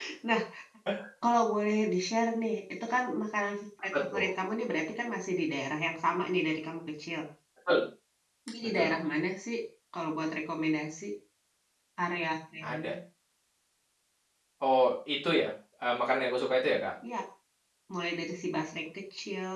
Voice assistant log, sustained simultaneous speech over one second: none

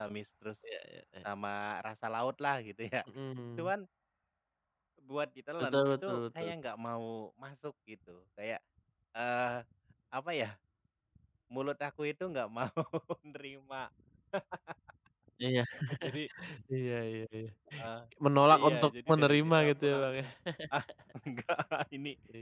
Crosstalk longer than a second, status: present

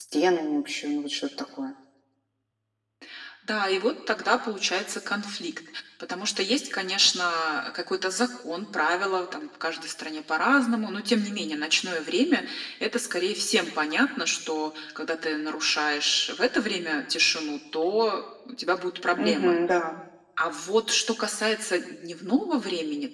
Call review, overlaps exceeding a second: none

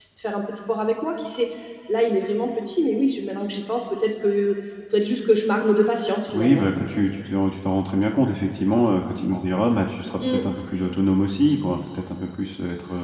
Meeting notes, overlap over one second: none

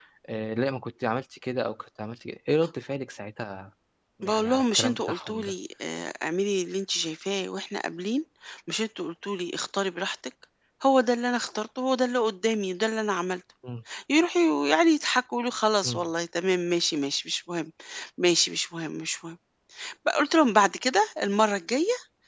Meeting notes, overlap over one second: present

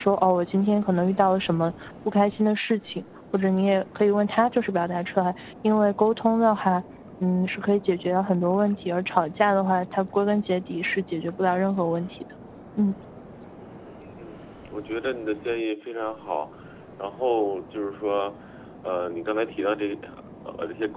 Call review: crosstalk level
none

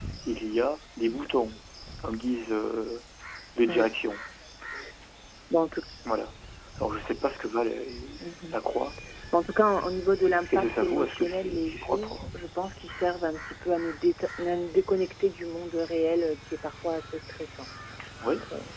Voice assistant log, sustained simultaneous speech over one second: present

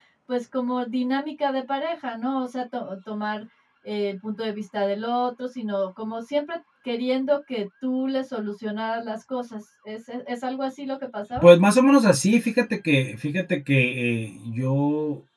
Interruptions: none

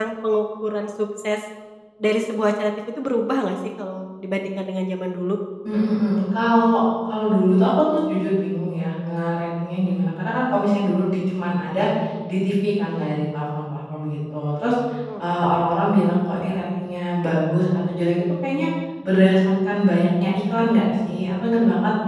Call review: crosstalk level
none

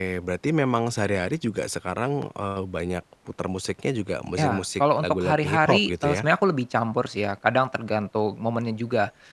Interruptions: present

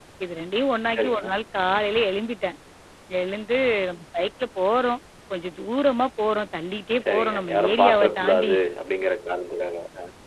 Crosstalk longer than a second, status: present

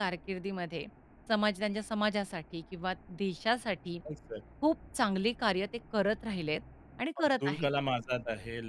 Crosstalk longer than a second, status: none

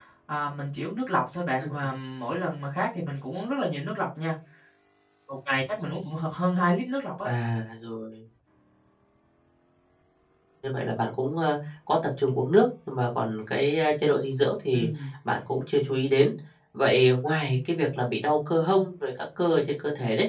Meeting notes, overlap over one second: none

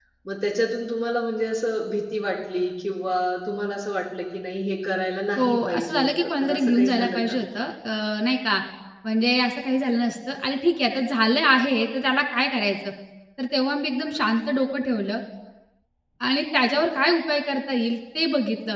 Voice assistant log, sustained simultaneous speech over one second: present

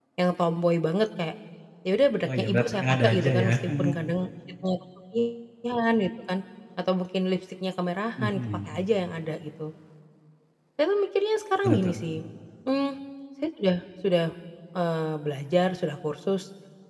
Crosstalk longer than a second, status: present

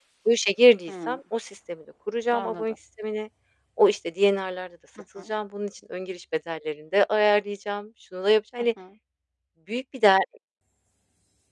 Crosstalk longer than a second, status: none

